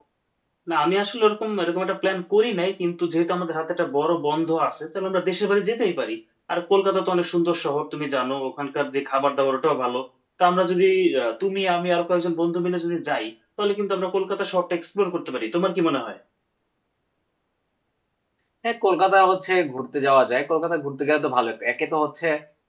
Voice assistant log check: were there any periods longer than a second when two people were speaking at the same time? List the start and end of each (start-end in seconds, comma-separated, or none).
none